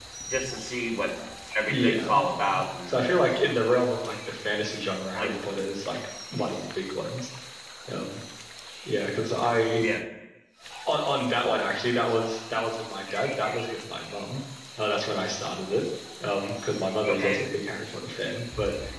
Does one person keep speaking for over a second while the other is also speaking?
Yes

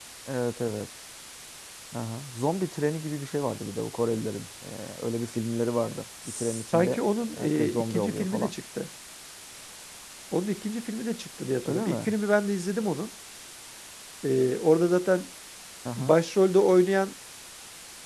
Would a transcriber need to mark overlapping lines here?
Yes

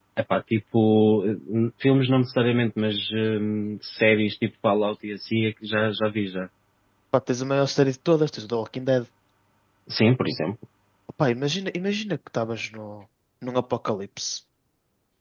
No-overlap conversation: Yes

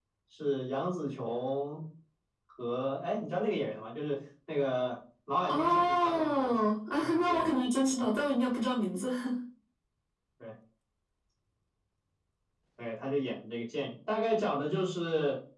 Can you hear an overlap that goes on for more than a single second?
Yes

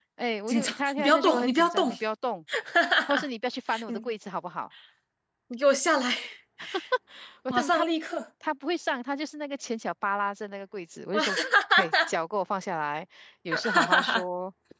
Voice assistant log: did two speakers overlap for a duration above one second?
Yes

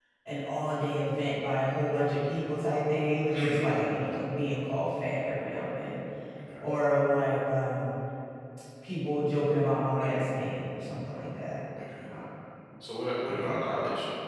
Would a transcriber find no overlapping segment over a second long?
Yes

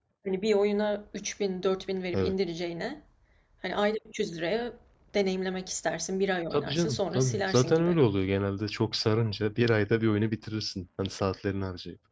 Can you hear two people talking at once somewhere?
Yes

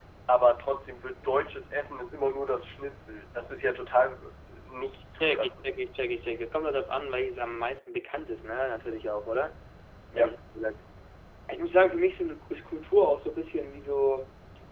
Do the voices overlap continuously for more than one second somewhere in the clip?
No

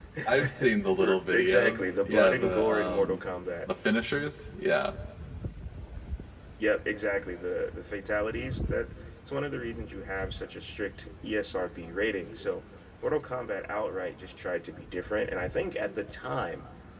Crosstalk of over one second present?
Yes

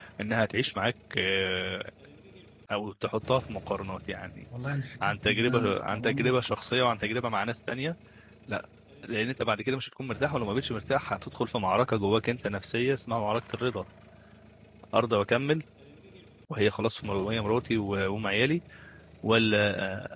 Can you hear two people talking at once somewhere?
Yes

